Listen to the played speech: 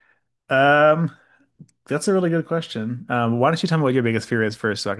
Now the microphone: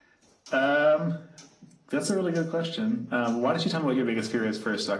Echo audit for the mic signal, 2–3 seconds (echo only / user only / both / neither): echo only